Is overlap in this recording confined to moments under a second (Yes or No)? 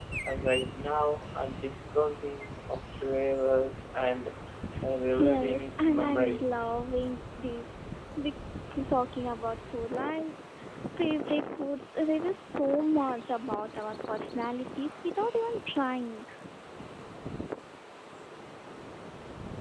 No